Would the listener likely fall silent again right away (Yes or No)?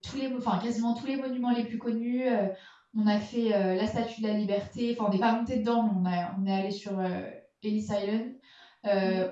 Yes